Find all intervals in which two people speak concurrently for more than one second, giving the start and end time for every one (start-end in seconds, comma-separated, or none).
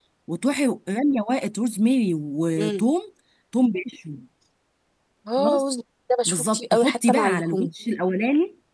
6.2-7.7